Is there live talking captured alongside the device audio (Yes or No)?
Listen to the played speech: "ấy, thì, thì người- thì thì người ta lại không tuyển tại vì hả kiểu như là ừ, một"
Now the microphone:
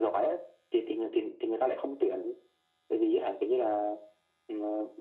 No